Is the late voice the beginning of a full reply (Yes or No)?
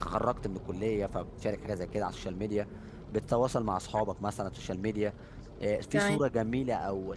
No